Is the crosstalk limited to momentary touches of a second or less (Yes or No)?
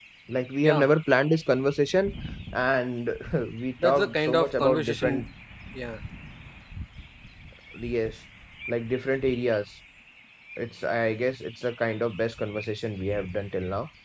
No